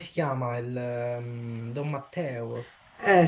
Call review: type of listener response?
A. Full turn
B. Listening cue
A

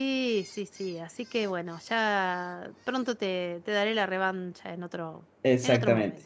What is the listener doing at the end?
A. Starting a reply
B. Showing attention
A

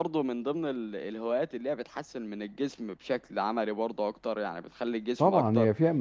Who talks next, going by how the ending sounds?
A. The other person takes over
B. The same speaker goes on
A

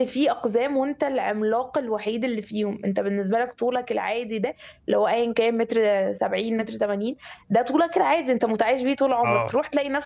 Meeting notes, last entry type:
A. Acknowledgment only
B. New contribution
A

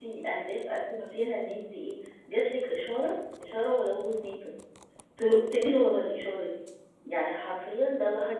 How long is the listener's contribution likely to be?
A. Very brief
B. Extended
A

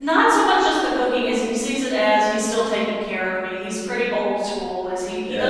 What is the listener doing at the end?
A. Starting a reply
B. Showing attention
B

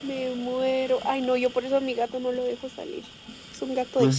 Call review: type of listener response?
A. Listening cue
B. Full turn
B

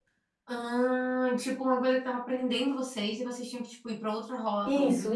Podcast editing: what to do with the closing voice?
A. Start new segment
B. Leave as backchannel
A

